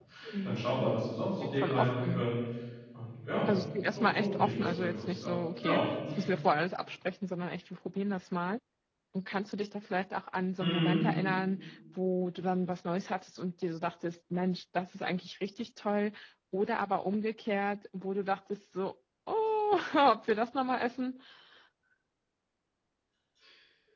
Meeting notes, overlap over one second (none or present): present